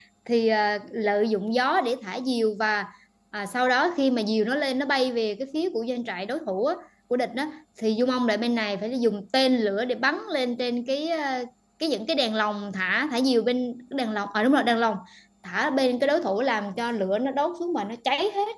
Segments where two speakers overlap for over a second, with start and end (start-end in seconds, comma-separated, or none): none